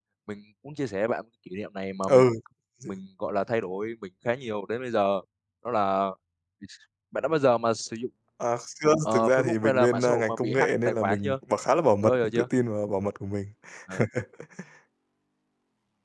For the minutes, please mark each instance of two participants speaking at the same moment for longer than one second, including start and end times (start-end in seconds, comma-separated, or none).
9.1-11.3